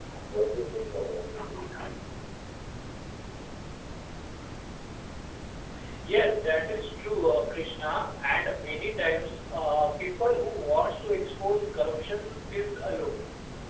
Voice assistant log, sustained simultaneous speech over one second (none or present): none